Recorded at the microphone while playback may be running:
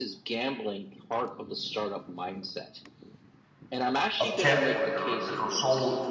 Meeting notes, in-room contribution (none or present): present